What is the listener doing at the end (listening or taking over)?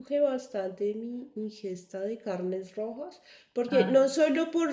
listening